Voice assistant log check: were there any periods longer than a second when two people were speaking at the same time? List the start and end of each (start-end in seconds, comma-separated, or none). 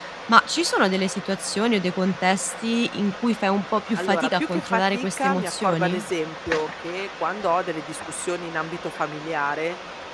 4.0-6.0